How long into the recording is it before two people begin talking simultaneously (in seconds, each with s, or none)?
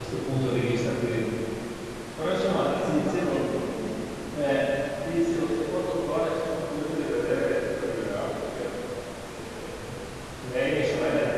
2.2 s